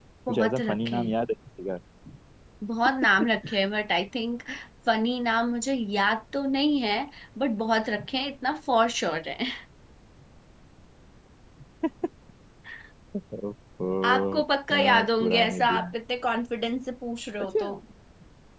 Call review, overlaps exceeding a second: present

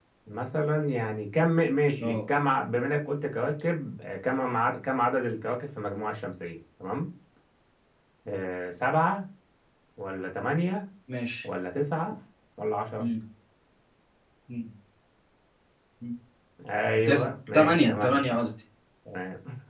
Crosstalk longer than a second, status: present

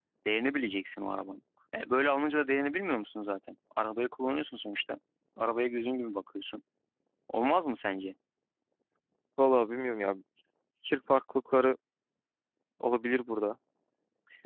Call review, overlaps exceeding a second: none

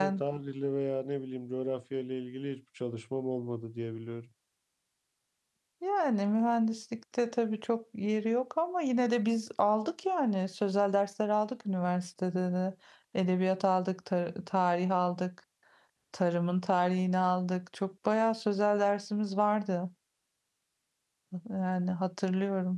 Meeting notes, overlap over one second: none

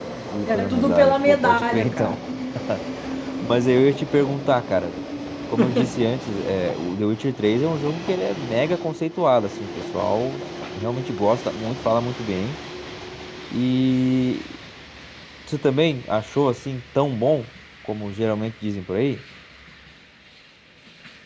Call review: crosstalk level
present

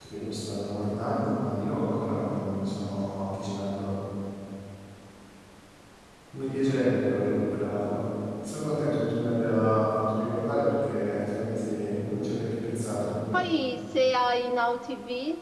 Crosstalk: none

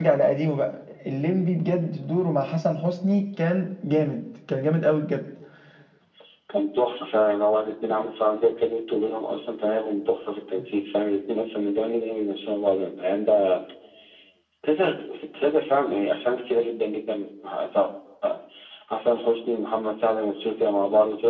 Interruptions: none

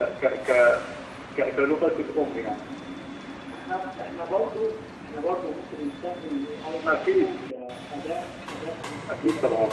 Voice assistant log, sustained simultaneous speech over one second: none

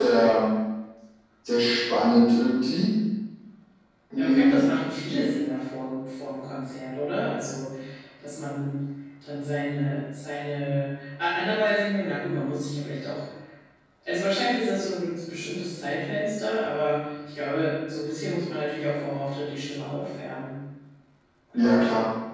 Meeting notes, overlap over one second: none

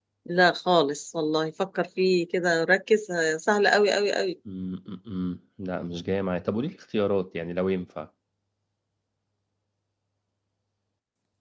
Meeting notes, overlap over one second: none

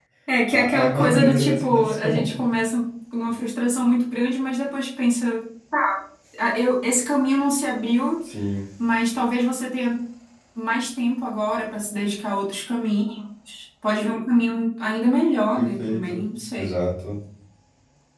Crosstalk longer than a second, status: present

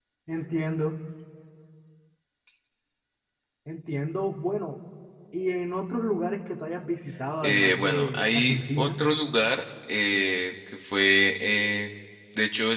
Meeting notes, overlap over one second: present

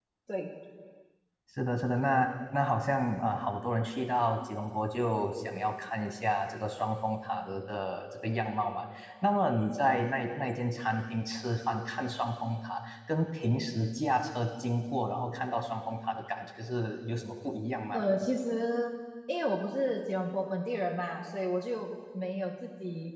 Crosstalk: none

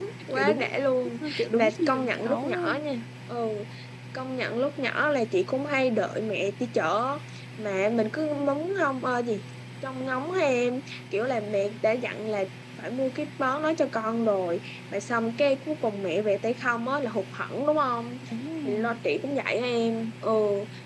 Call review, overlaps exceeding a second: present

